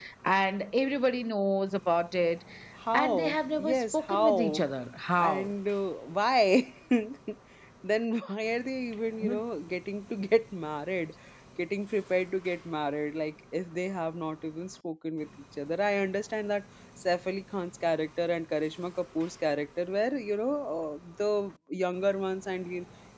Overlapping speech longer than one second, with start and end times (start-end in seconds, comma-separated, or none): 2.9-4.6